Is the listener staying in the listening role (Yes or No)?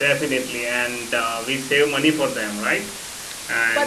No